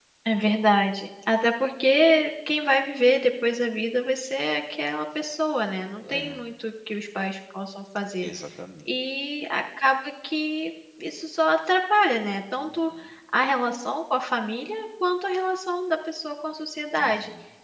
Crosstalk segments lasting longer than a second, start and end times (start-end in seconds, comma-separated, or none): none